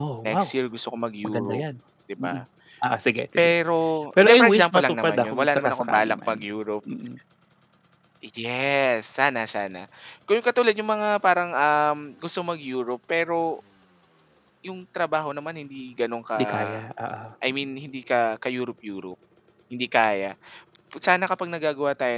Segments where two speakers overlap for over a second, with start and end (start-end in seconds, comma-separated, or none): 4.2-6.4